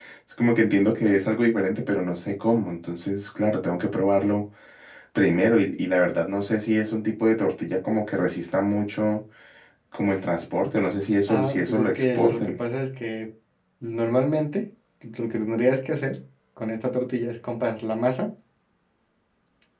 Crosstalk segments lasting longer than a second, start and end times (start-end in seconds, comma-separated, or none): 11.3-12.6